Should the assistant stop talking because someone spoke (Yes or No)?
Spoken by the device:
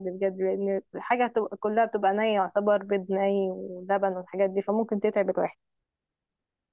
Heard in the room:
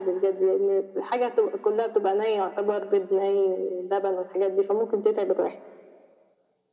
No